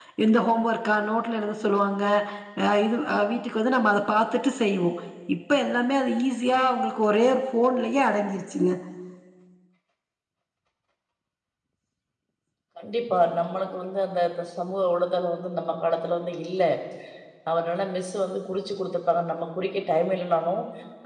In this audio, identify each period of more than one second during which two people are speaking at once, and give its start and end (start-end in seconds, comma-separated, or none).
none